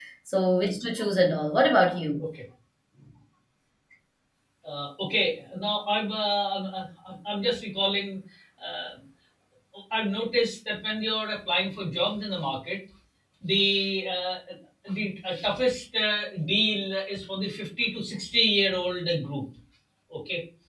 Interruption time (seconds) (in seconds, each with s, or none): none